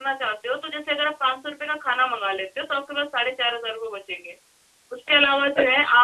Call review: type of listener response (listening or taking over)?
listening